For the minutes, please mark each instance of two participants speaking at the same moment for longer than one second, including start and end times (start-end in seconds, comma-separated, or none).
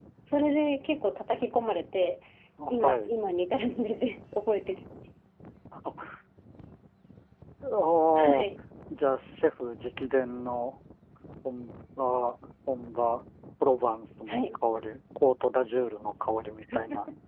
none